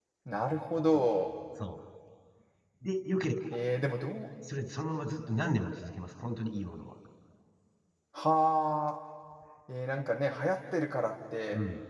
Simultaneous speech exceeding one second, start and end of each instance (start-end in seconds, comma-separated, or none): none